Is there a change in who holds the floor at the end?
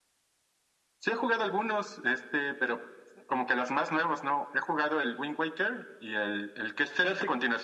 No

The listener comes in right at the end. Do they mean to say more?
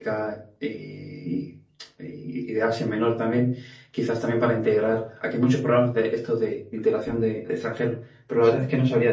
No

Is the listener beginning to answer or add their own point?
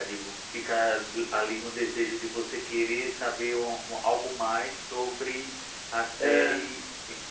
No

